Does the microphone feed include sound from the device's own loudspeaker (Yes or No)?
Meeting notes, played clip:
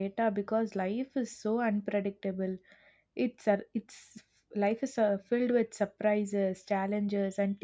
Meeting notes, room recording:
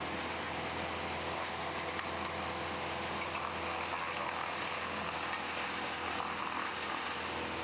No